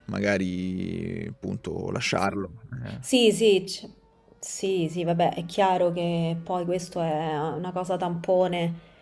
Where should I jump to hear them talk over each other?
none

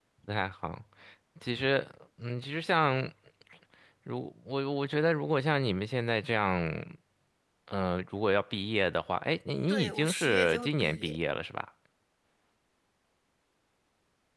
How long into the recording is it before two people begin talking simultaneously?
9.7 s

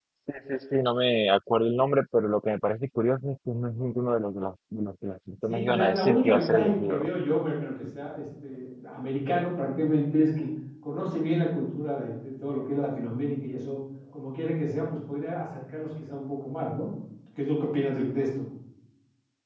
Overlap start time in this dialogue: 5.5 s

